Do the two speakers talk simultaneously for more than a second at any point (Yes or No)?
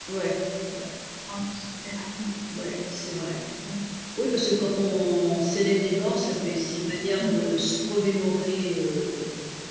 No